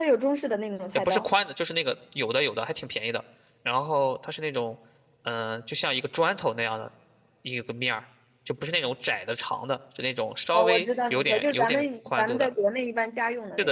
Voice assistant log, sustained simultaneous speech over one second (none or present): present